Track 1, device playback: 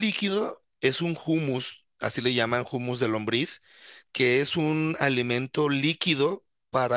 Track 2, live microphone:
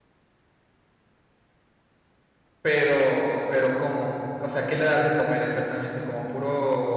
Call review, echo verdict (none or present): none